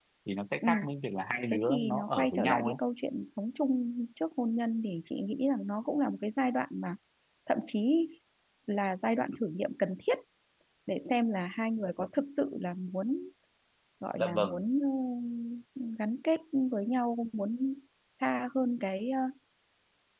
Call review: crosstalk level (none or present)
present